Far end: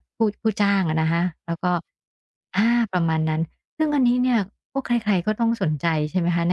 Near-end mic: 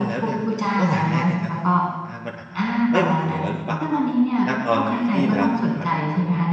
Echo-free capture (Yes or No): No